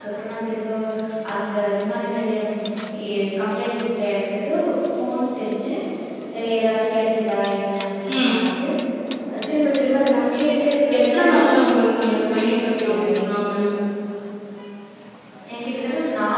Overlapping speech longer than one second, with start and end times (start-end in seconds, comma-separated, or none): 11.0-13.2